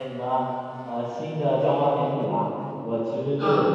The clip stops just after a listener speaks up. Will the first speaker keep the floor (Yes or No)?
Yes